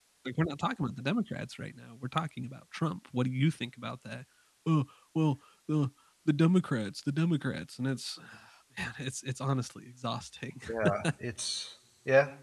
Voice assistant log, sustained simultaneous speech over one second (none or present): none